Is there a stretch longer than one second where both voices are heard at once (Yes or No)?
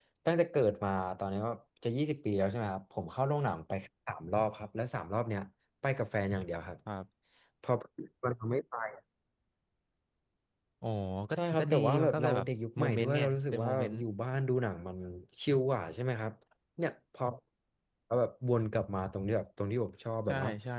Yes